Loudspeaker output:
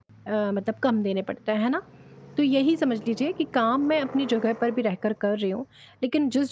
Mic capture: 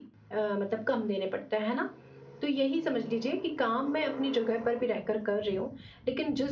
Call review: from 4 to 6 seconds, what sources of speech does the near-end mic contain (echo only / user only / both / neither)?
echo only